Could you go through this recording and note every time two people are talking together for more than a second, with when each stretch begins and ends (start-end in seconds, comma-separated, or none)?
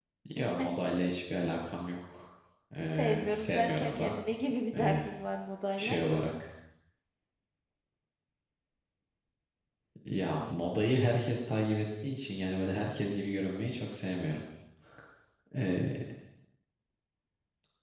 2.9-4.1